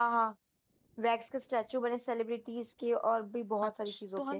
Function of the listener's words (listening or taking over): taking over